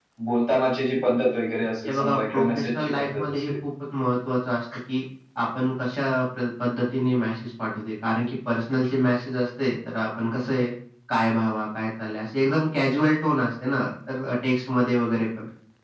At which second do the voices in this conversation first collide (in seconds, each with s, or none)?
1.9 s